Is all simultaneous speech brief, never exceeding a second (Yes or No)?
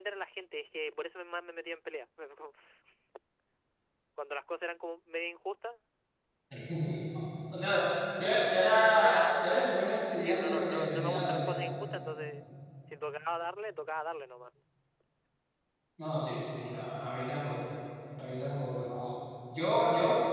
No